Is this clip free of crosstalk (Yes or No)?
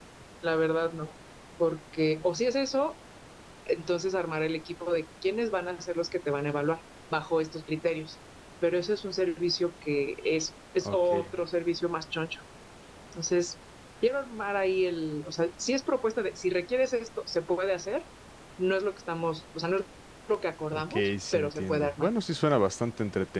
No